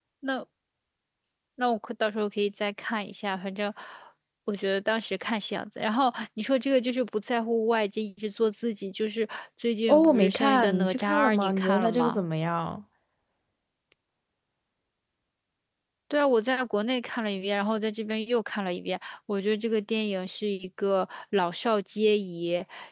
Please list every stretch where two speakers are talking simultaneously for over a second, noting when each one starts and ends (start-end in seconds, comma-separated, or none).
9.9-12.2